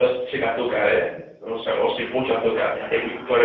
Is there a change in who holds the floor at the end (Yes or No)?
No